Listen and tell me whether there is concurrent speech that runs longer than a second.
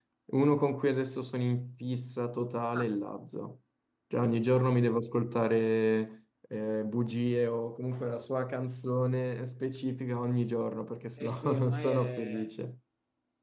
Yes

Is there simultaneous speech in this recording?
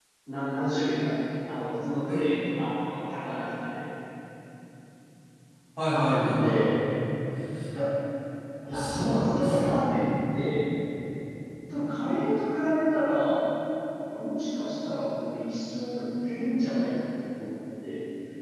Yes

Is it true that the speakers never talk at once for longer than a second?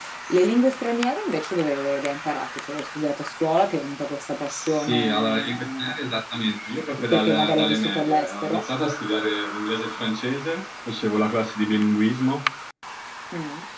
No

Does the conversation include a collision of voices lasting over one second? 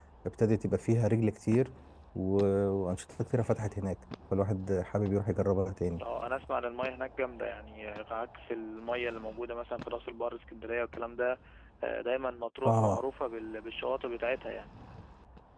No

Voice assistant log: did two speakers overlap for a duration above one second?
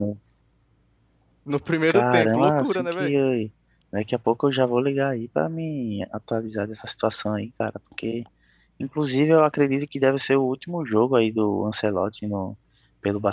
Yes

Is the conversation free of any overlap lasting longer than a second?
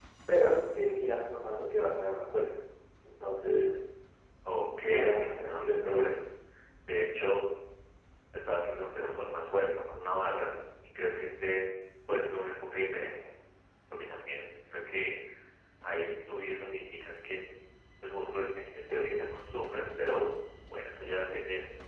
No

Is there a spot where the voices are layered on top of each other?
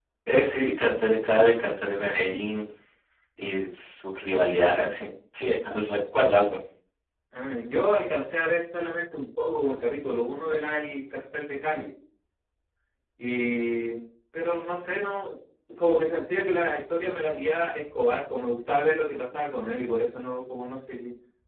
No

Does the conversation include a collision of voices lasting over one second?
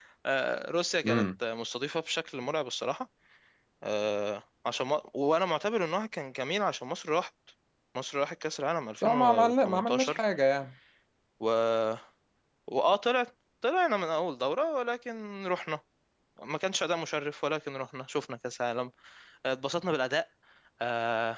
Yes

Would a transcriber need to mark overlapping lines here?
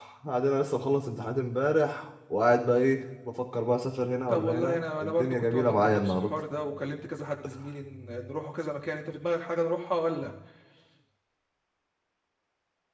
Yes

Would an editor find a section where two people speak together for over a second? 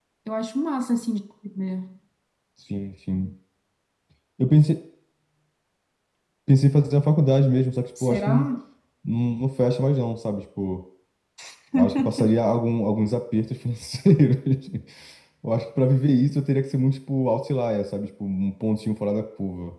No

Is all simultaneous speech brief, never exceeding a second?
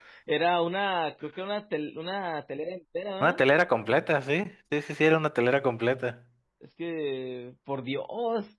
Yes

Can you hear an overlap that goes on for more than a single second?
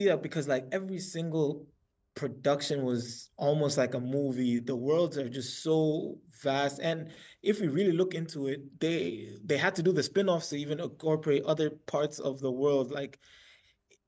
No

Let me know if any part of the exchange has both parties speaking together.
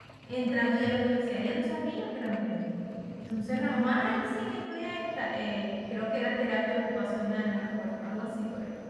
No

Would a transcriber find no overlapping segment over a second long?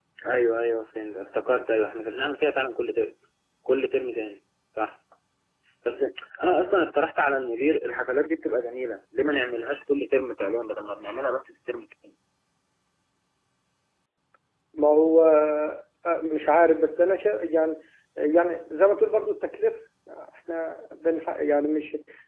Yes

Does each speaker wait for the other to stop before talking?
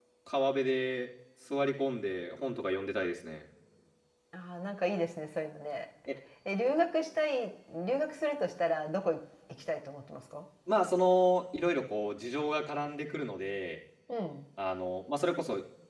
Yes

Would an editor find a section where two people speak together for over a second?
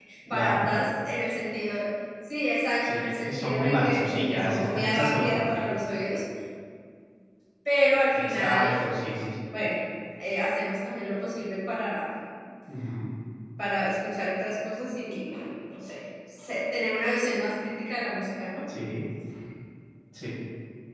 Yes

